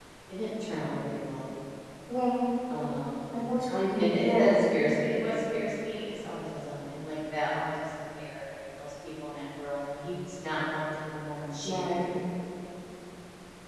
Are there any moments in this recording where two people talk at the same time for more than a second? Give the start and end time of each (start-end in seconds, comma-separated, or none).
none